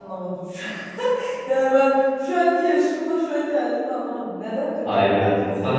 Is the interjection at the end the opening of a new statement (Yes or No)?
Yes